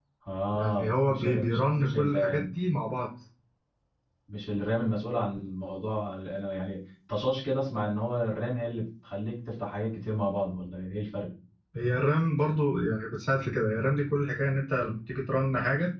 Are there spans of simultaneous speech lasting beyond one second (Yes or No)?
Yes